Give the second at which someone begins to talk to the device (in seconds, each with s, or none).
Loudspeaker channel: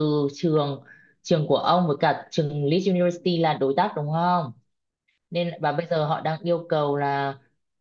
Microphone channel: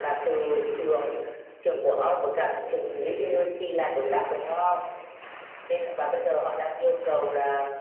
none